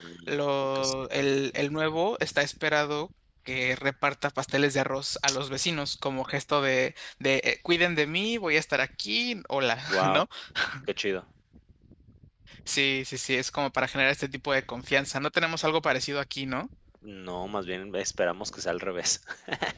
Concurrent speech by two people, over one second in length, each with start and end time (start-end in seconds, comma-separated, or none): none